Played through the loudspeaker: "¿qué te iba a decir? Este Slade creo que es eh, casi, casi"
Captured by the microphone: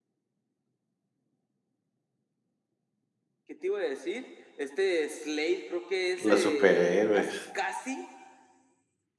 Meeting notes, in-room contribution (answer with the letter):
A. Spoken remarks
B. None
A